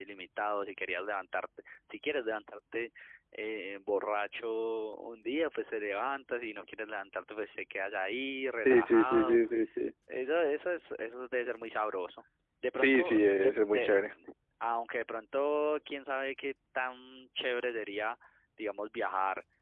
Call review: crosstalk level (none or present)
present